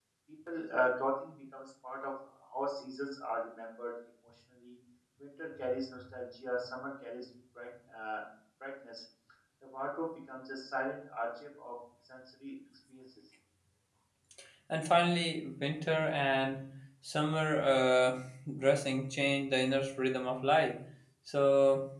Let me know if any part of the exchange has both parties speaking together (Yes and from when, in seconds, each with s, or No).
No